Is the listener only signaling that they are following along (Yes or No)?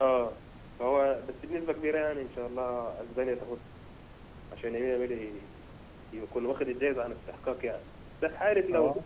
Yes